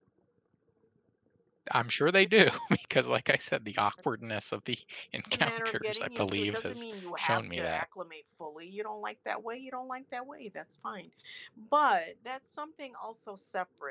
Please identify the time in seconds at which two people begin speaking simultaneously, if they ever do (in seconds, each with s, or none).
5.3 s